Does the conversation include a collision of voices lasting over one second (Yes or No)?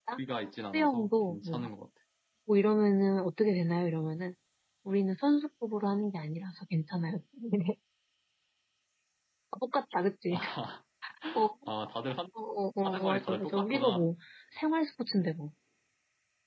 Yes